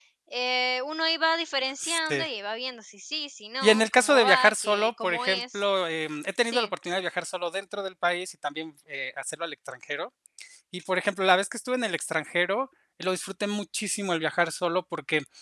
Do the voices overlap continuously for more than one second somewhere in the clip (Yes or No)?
Yes